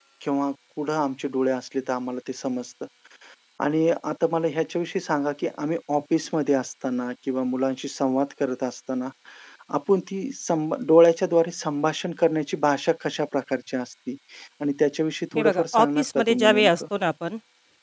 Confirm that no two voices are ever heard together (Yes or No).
No